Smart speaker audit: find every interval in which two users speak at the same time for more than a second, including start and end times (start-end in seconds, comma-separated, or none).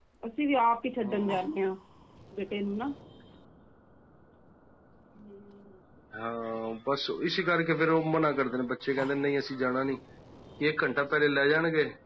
none